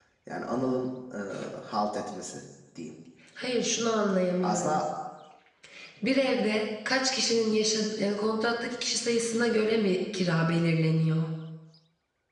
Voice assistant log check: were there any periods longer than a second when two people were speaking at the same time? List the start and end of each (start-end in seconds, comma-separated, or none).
none